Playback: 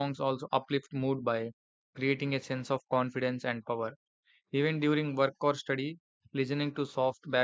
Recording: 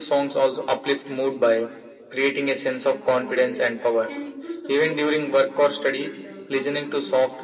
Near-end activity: present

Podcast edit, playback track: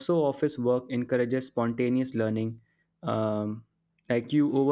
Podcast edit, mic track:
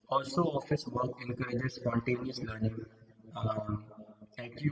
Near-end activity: none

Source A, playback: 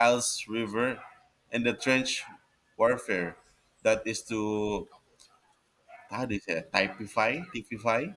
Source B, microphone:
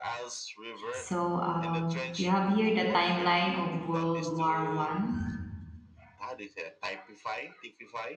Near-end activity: present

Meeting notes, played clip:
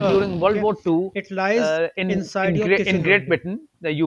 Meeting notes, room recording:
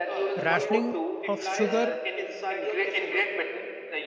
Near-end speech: present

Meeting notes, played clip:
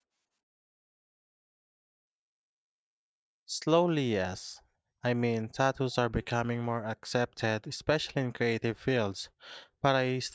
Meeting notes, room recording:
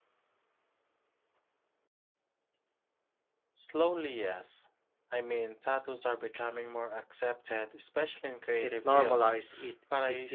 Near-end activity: present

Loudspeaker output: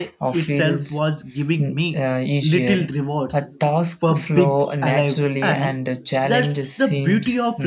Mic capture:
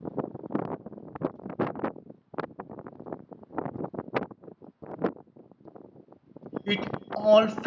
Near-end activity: present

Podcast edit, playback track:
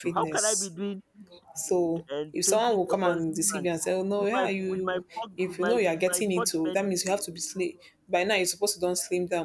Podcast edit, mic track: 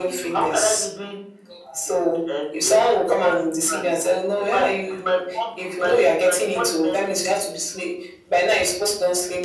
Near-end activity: none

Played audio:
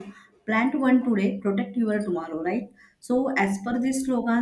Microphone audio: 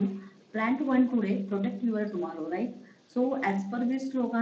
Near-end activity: none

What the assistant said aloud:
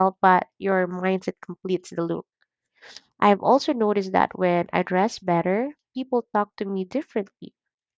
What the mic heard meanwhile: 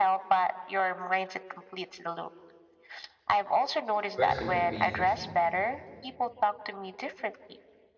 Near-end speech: present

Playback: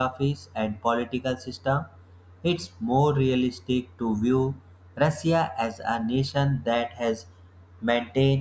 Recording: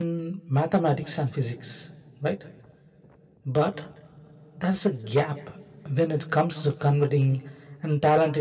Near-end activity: present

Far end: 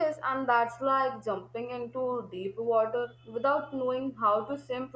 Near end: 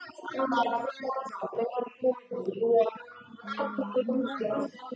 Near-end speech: present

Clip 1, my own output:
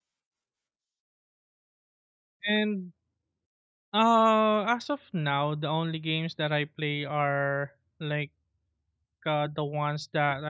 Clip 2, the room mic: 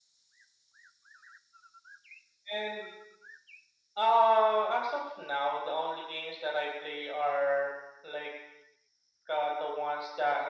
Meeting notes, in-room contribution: none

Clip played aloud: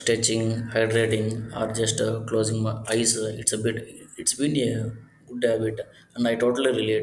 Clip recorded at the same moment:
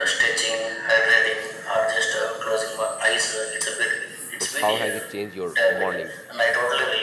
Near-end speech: present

